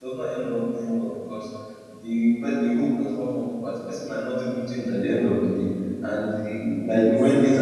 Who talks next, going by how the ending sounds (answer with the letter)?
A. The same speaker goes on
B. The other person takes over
A